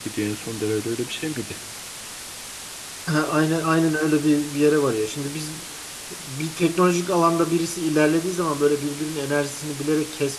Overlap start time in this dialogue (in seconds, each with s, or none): none